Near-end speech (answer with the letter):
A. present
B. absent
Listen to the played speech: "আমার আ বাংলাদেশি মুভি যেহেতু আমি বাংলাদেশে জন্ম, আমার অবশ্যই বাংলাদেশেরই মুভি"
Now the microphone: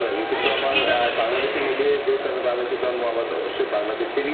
A